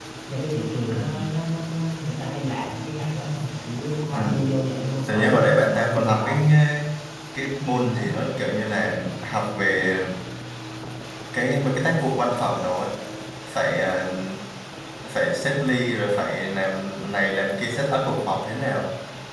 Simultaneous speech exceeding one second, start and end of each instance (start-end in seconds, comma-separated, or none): 5.1-6.3